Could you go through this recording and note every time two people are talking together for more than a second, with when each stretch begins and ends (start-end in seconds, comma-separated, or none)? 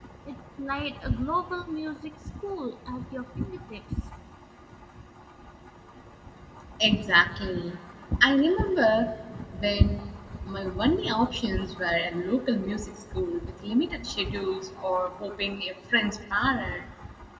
none